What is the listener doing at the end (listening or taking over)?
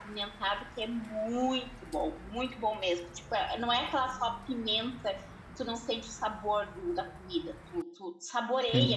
taking over